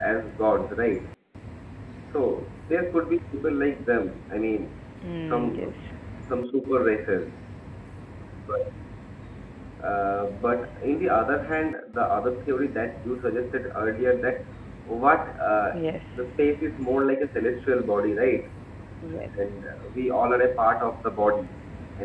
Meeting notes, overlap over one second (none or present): none